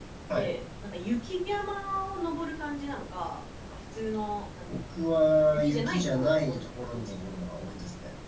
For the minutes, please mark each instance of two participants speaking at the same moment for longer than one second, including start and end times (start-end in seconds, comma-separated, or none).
5.5-7.2